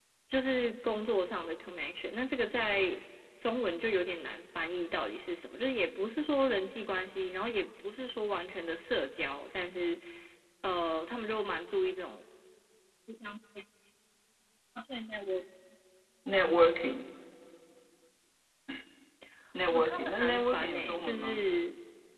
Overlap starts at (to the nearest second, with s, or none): 20 s